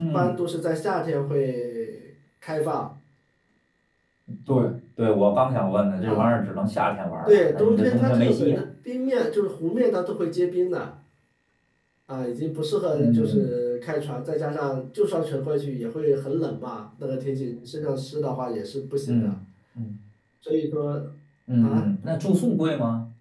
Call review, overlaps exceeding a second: present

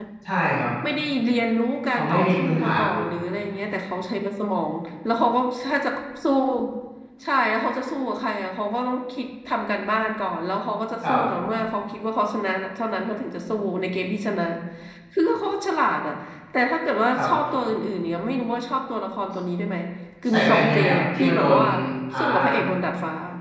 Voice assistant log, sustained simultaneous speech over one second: present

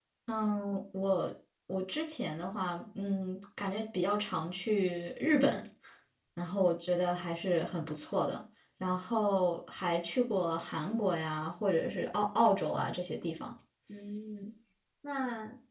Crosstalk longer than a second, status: none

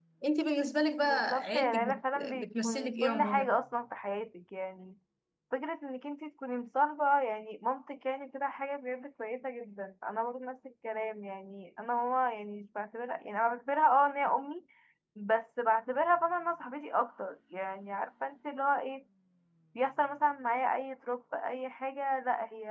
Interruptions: present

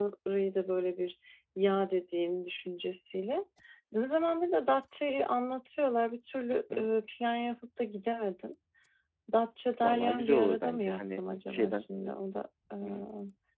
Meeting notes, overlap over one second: present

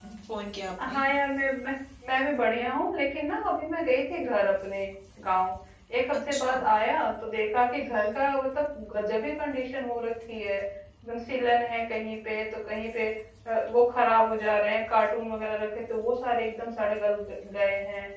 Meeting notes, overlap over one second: none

